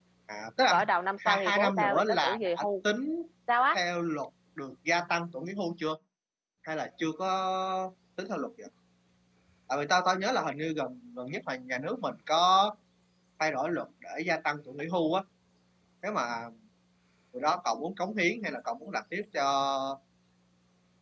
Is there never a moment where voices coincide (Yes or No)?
No